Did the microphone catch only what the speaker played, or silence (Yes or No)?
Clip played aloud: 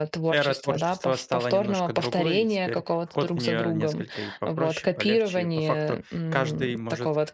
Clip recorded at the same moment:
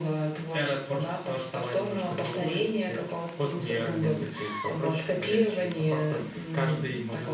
Yes